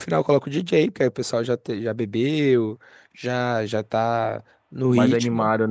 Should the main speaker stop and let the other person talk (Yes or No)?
Yes